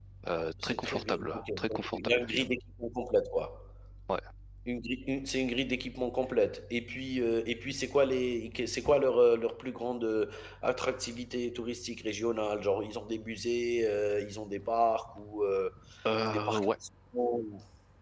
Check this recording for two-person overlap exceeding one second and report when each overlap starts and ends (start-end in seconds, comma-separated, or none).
0.6-2.4